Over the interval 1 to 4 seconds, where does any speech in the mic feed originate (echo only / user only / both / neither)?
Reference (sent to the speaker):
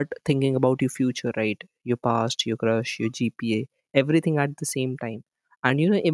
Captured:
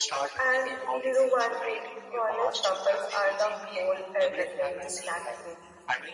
both